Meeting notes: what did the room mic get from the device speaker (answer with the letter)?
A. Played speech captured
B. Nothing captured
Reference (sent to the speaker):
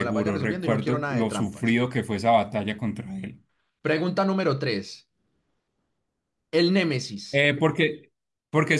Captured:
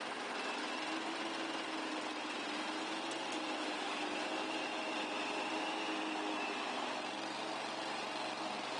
B